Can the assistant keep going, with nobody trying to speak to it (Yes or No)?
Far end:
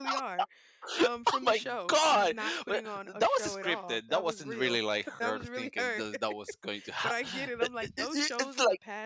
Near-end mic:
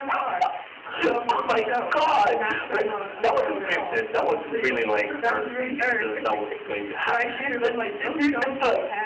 Yes